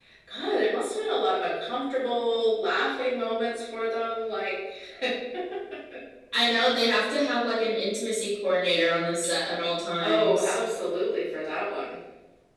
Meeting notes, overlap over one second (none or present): none